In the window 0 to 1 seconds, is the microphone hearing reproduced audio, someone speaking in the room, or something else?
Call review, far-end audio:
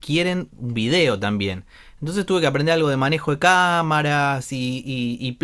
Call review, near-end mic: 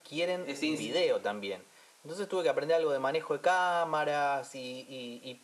both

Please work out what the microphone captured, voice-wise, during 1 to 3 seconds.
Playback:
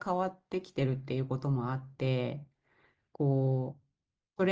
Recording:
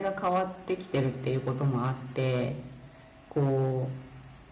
echo only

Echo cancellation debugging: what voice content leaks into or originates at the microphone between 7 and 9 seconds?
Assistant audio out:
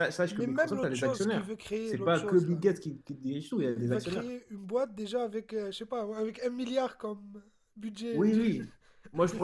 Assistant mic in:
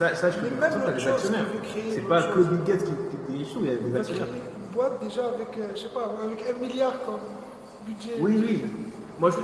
echo only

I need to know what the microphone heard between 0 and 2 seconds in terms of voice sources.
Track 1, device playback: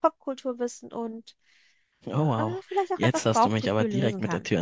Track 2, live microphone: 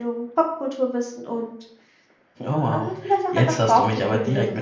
echo only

